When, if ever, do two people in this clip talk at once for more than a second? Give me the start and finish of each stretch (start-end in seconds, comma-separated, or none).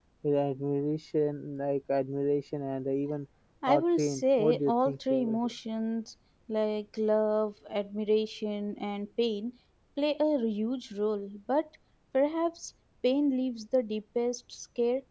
3.7-5.5